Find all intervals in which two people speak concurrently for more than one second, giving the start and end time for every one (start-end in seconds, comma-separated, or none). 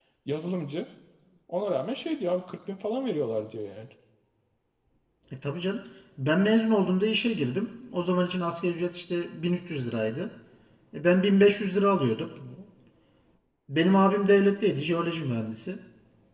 none